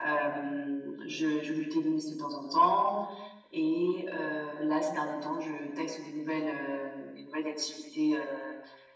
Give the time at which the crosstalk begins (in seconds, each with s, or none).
none